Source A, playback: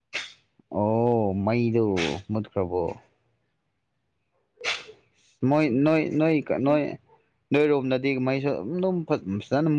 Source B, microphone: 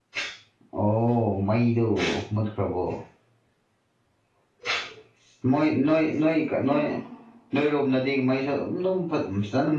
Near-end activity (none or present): present